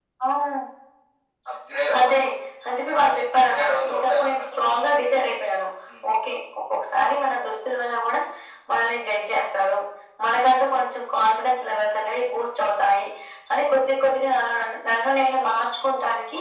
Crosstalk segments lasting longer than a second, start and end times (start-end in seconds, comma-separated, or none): 3.0-4.9